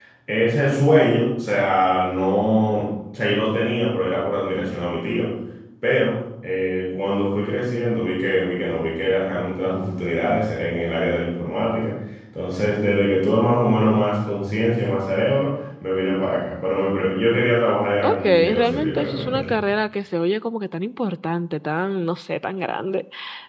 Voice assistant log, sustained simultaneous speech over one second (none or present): present